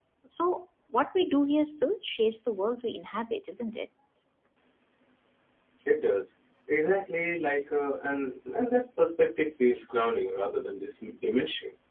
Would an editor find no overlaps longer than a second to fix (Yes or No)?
Yes